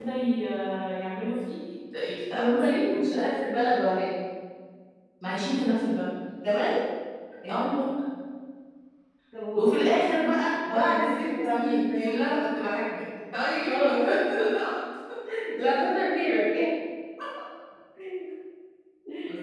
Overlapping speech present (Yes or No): Yes